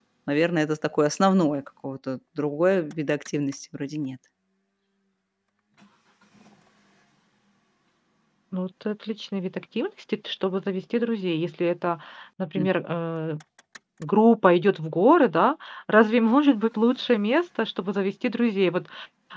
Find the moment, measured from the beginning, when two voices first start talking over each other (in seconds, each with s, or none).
none